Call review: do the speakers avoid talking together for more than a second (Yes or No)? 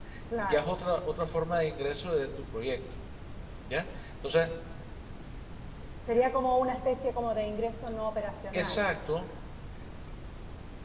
Yes